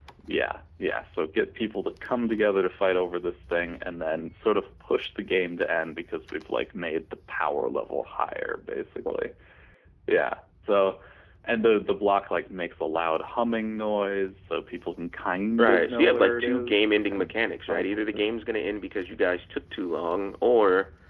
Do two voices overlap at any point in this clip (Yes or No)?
Yes